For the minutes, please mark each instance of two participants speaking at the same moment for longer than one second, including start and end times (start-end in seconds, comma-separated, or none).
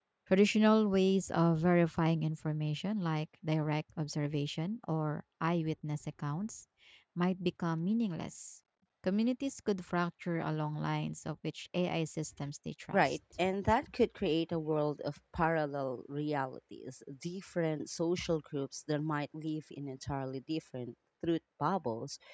none